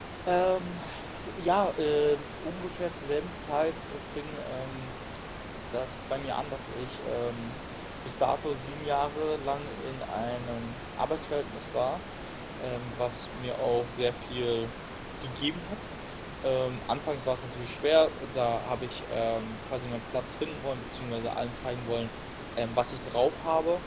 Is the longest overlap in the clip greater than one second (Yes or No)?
No